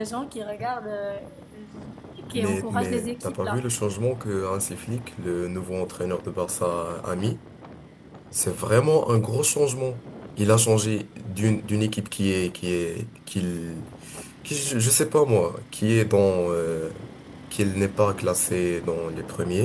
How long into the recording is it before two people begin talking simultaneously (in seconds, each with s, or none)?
2.4 s